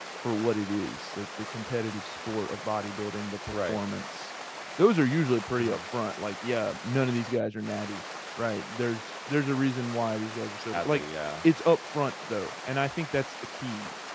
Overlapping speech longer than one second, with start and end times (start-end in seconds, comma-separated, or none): none